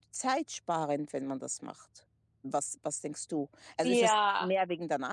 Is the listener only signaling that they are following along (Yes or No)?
Yes